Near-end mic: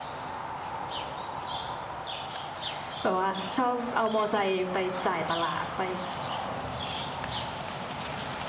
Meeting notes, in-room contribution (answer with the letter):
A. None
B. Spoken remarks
B